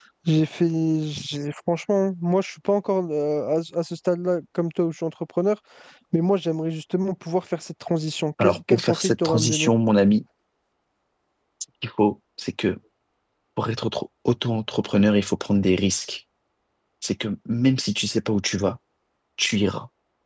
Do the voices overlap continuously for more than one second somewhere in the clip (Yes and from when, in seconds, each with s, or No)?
Yes, from 8.4 s